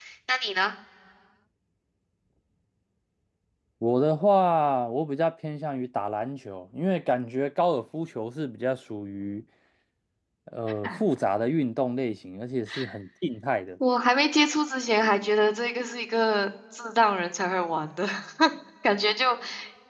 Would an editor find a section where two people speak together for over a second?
No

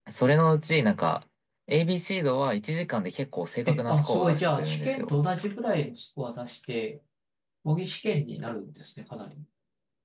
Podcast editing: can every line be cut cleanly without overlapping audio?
No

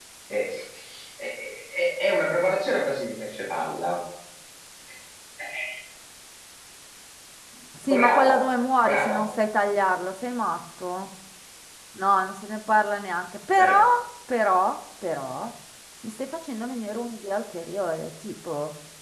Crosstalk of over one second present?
No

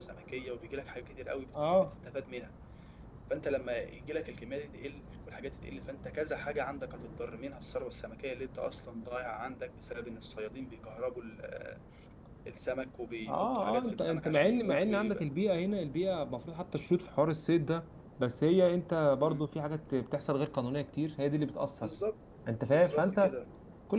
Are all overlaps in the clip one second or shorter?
No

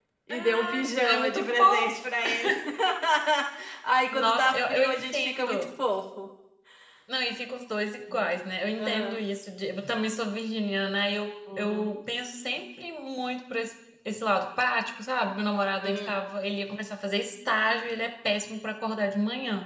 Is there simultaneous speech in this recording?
Yes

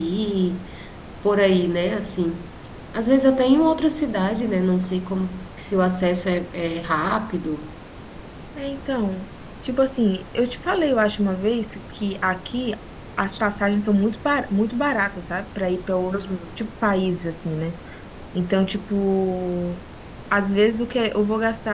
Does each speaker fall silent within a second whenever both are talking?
Yes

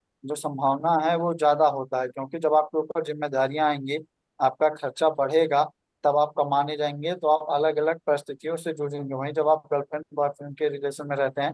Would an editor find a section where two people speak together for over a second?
No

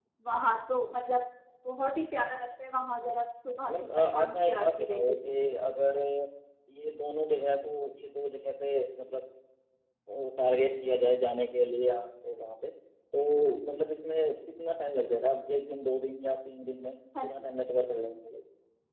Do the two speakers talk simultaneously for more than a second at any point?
Yes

